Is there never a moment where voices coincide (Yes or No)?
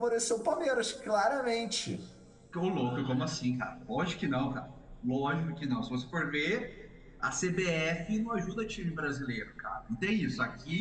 Yes